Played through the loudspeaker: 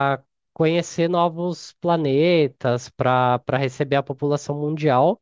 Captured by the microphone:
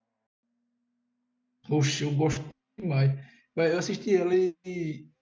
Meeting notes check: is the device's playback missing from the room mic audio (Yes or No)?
Yes